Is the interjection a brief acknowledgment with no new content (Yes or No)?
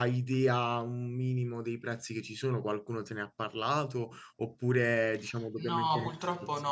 No